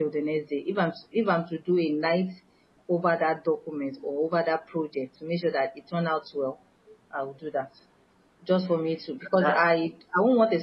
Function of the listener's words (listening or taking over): listening